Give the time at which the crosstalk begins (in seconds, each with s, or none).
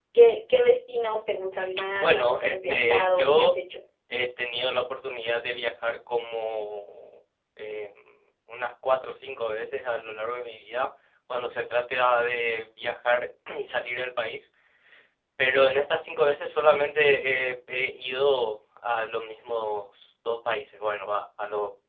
2.0 s